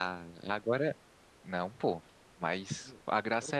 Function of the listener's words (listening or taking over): listening